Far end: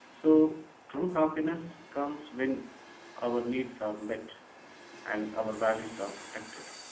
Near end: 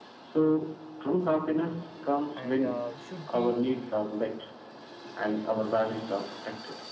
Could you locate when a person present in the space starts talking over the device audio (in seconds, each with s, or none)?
2.3 s